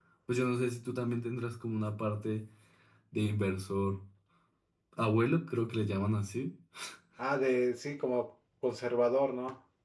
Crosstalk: none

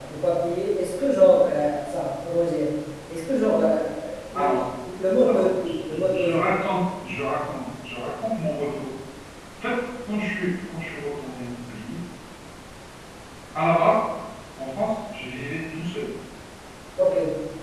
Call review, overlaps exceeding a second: present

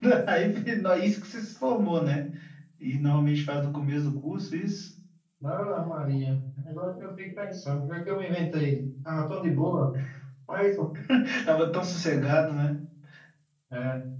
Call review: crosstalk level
none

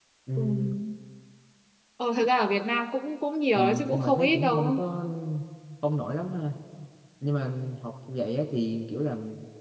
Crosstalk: present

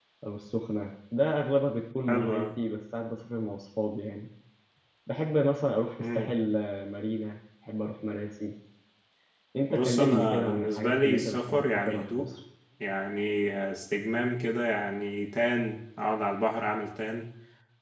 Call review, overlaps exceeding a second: present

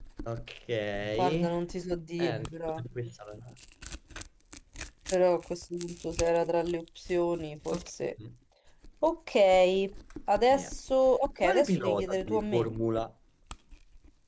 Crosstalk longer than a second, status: present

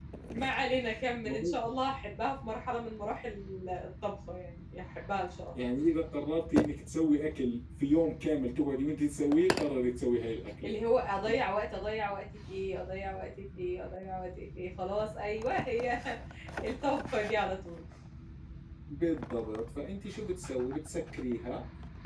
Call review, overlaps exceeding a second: none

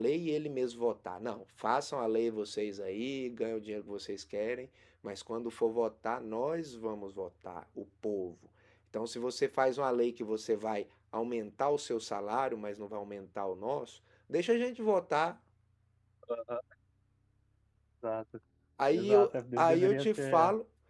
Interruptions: present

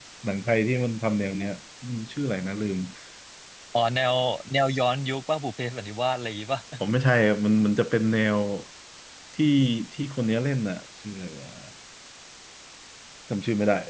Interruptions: none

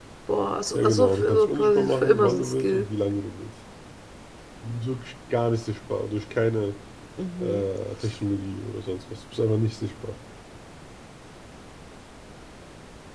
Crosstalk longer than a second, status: present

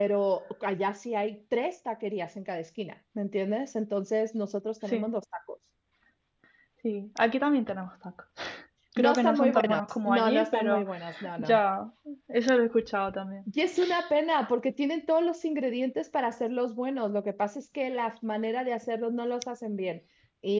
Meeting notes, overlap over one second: present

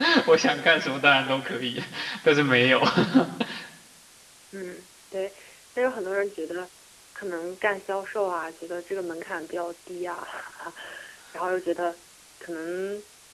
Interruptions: none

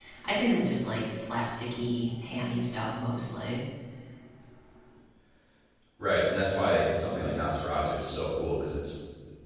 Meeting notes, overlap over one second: none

